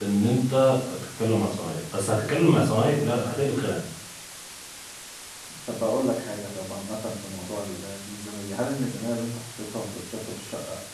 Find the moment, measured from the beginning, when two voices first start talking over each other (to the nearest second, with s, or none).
none